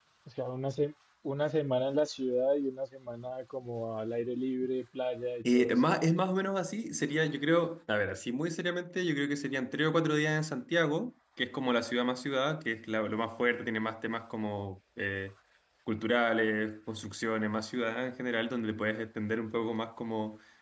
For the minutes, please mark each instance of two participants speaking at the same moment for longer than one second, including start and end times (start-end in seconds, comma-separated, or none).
none